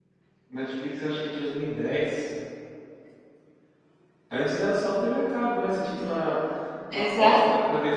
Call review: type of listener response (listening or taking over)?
listening